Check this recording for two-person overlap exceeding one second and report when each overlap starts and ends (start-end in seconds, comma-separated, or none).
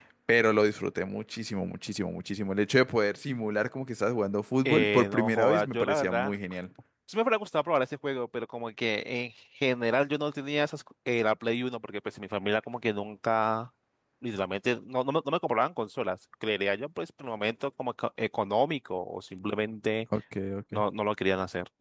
4.7-6.3